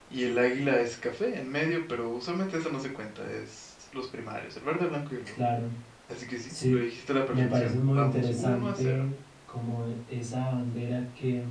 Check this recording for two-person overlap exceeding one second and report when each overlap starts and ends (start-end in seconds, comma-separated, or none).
7.3-9.0